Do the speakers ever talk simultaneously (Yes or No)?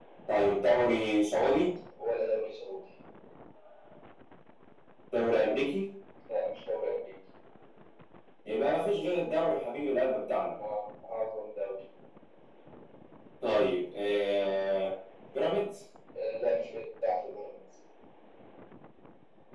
No